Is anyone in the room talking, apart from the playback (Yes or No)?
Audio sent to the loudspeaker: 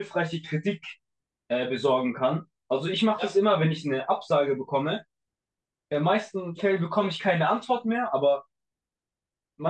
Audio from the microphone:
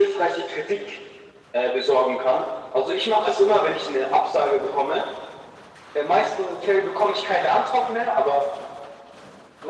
No